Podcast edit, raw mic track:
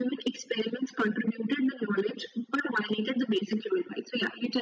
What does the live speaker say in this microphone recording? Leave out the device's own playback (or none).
none